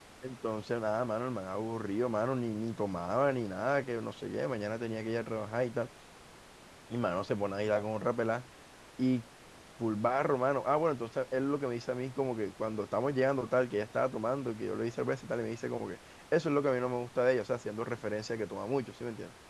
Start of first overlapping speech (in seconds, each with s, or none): none